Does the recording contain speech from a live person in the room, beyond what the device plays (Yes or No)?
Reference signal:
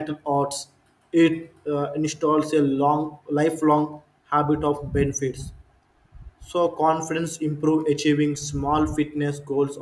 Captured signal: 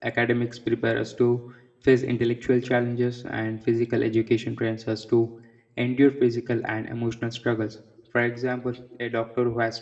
Yes